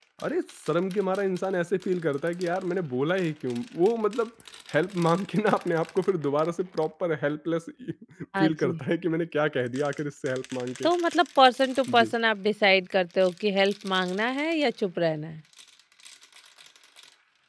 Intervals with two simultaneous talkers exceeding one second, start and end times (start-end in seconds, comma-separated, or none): none